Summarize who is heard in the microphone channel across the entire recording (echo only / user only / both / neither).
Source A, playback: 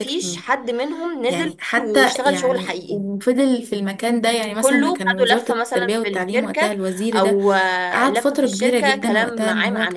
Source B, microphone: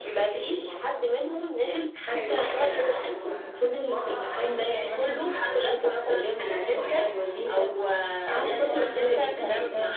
both